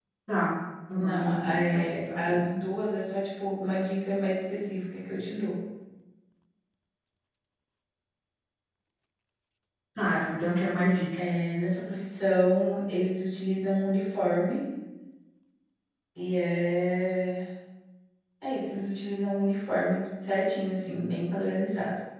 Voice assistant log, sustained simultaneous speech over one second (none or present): present